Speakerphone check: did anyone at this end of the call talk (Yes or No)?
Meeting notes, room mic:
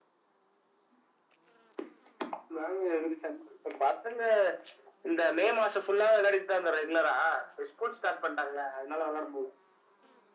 No